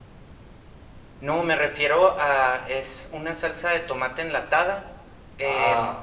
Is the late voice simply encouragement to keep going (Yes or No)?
Yes